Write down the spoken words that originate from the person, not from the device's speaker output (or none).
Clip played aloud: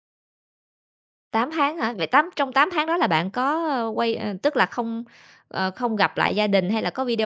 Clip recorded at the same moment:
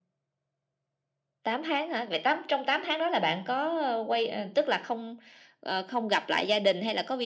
none